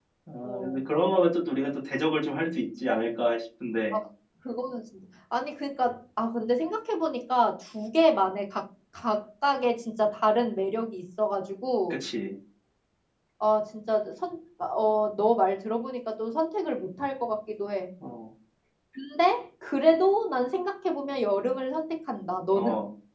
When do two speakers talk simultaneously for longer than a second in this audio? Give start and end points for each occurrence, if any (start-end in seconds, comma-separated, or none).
none